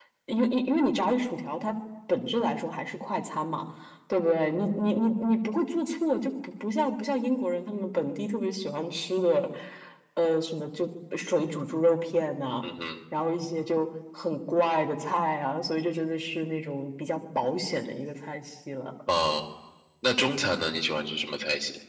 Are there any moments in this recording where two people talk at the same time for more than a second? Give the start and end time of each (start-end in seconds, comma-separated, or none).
none